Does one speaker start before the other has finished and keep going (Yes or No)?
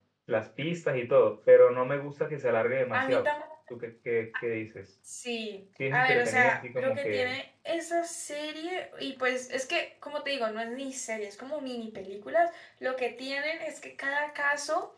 Yes